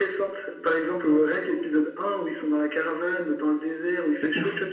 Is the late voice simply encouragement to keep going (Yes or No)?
Yes